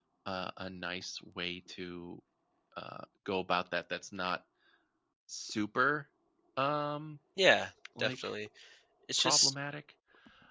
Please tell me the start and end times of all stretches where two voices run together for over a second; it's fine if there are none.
none

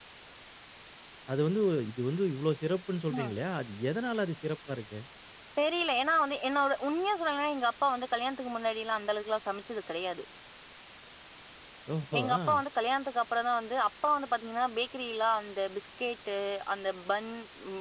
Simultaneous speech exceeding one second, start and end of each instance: none

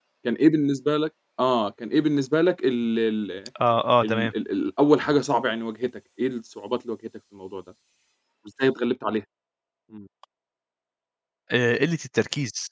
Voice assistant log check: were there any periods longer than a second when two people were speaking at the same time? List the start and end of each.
none

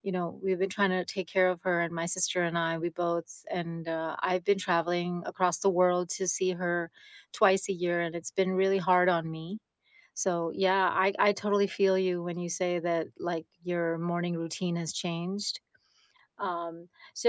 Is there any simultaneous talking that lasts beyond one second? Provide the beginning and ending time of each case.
none

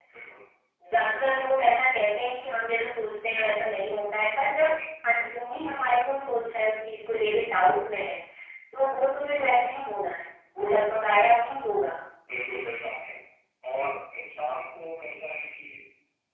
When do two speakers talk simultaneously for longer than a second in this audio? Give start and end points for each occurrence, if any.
none

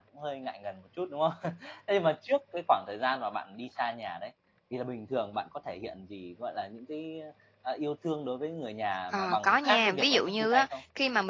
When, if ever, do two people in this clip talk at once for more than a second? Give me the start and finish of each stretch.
9.1-10.8

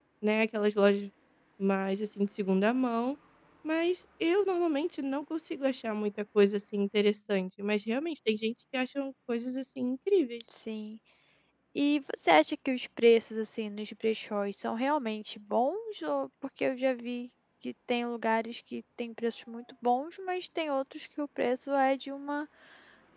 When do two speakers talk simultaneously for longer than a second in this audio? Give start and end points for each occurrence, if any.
none

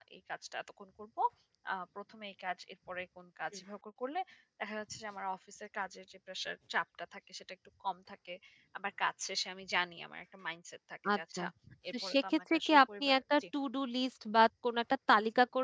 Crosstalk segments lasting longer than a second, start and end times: 11.9-13.4

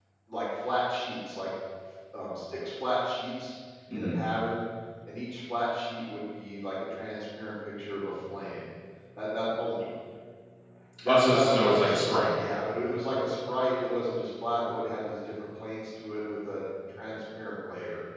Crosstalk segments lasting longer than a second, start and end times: 11.1-12.3

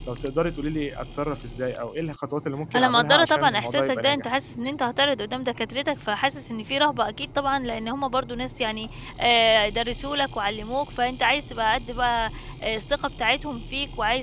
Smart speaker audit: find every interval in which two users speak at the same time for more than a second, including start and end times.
2.8-4.2

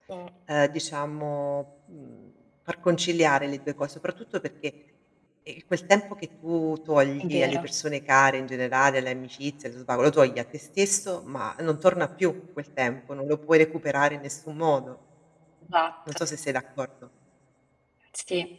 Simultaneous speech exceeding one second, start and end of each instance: none

